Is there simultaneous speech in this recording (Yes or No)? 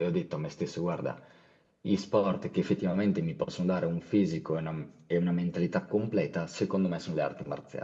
No